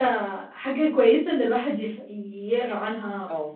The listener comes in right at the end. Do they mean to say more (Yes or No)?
No